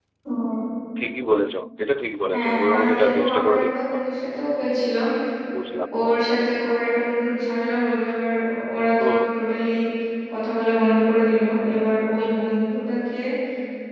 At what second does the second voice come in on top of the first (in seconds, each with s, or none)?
2.3 s